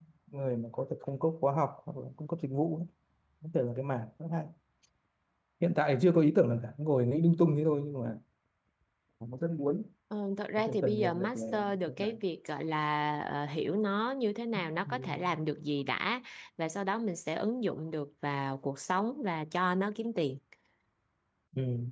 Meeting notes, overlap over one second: present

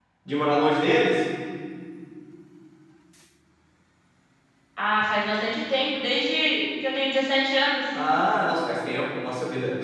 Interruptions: none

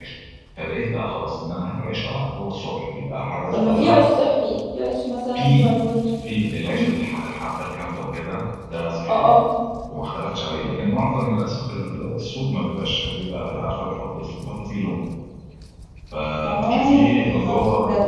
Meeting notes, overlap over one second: present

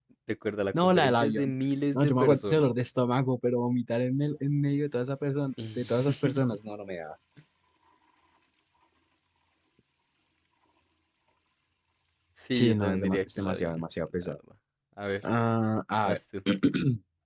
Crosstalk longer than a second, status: present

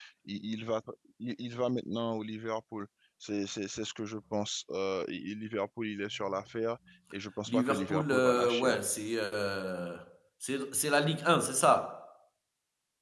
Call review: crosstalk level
present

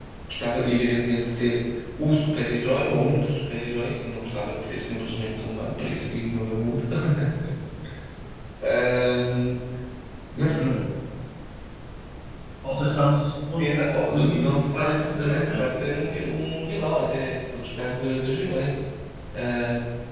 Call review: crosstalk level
present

